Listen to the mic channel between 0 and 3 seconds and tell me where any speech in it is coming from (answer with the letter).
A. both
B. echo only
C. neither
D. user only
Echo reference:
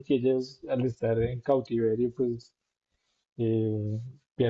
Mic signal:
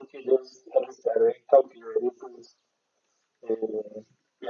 B